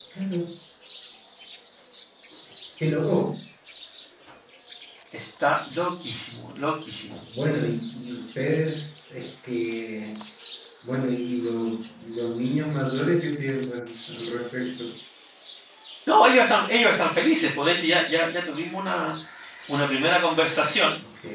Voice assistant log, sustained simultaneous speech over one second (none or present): none